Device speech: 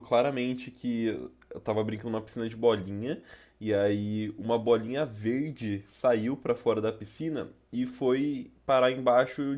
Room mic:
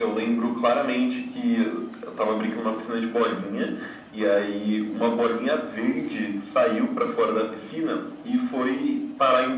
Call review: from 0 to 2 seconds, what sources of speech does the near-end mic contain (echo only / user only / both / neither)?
echo only